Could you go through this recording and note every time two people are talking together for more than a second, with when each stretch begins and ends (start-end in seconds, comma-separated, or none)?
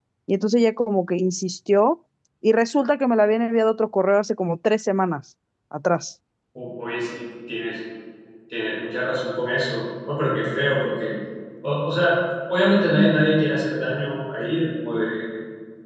none